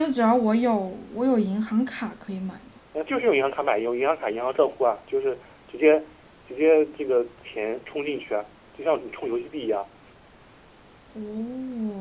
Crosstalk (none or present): none